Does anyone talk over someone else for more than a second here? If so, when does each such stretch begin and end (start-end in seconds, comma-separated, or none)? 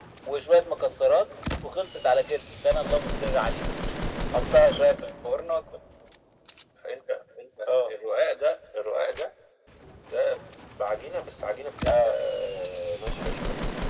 none